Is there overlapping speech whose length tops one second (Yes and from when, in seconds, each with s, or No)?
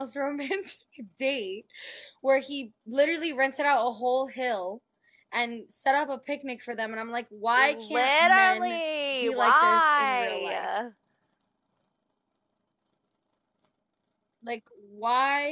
Yes, from 7.6 s